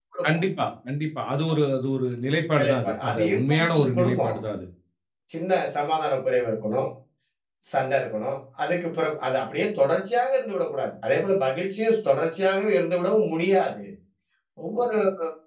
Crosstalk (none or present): present